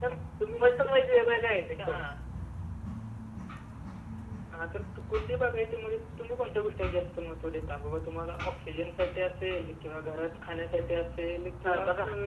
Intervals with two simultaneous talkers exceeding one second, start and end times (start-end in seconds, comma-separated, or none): none